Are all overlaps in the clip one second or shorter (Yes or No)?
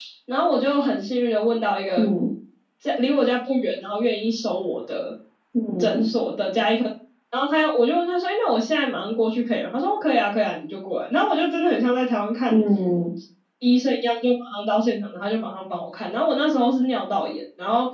Yes